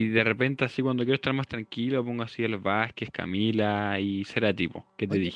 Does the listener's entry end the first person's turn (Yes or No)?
Yes